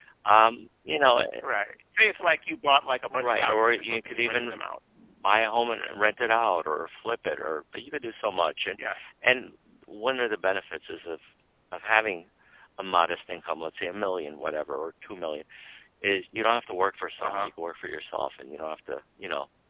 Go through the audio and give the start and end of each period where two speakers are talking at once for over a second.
3.1-4.7

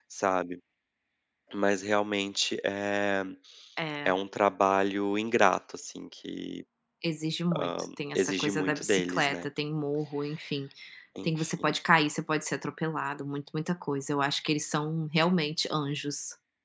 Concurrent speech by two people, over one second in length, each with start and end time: 8.2-9.4

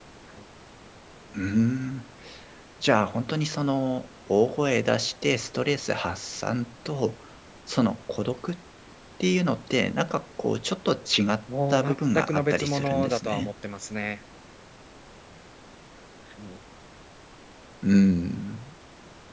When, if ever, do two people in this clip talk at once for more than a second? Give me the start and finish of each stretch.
11.7-13.5

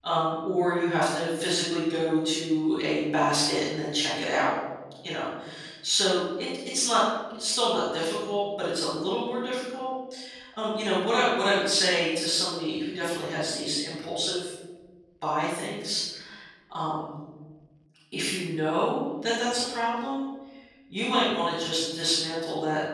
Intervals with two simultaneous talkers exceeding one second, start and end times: none

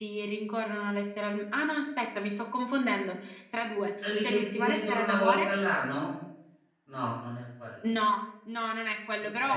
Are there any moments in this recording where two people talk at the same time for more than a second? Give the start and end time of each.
4.2-5.5

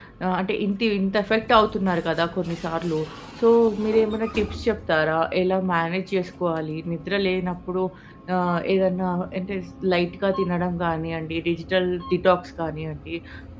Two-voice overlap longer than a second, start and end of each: none

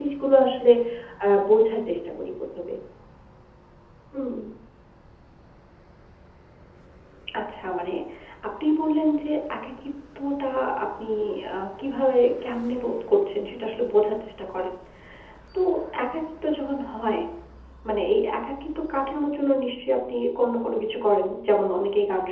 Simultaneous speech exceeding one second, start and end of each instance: none

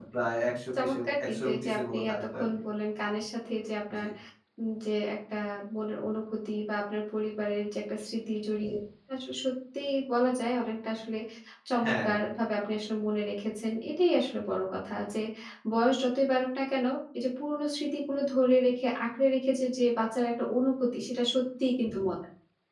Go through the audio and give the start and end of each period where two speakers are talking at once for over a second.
0.8-2.5

